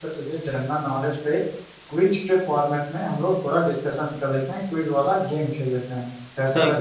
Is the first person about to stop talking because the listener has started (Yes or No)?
Yes